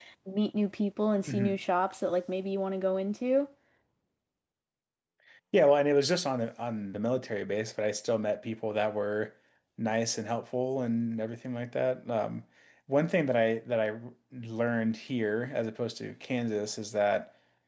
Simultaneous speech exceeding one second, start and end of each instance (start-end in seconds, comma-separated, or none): none